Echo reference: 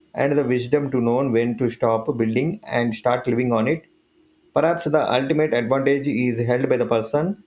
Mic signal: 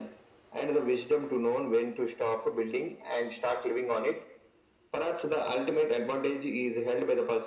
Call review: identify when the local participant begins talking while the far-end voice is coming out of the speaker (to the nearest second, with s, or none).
none